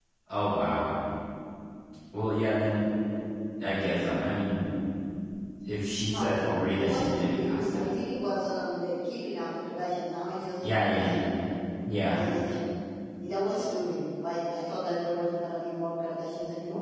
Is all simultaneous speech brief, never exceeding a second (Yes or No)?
No